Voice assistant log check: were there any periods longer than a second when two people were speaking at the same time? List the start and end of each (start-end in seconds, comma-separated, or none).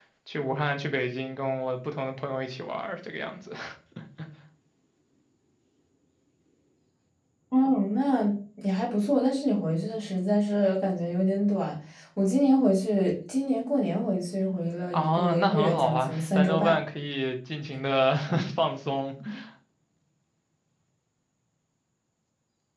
14.9-16.8